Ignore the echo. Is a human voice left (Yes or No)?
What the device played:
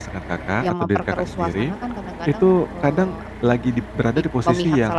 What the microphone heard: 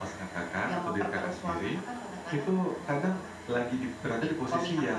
No